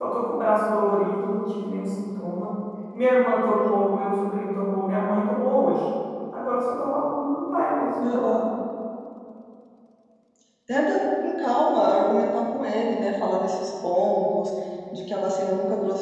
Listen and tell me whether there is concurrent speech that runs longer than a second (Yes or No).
No